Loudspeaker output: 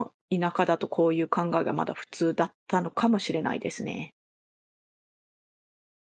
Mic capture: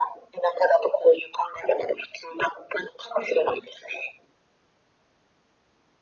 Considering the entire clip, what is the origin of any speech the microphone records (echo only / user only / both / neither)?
echo only